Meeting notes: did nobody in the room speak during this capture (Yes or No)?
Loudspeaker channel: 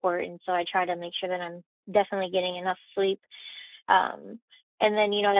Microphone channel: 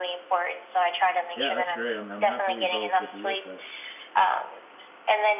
No